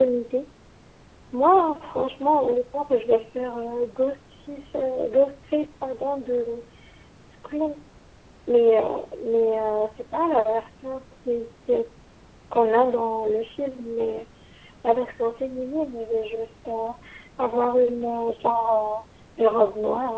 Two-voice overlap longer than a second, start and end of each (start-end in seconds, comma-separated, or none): none